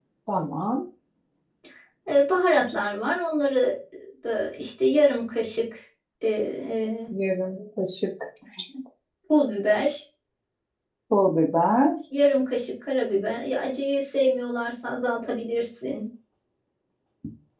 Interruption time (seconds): none

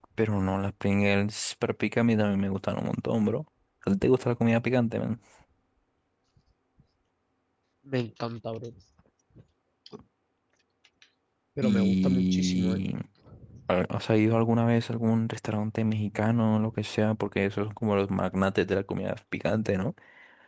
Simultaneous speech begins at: 12 s

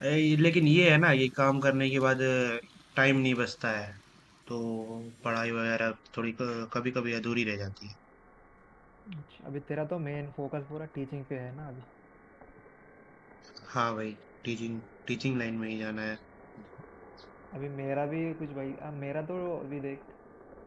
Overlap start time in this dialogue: none

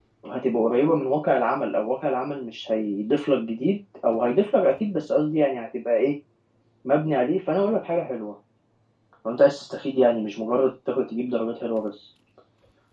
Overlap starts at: none

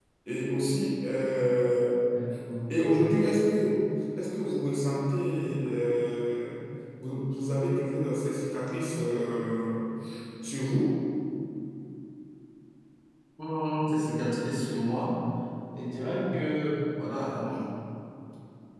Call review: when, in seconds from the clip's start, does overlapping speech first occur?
none

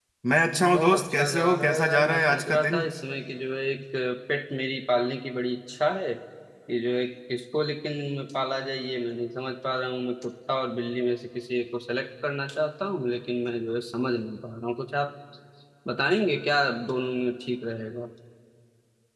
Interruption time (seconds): 1 s

